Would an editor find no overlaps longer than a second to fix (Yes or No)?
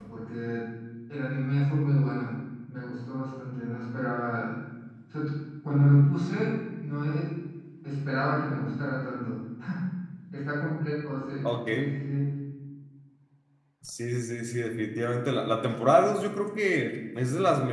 Yes